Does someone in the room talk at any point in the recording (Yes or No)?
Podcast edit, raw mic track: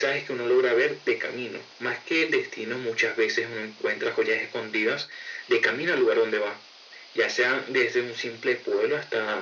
No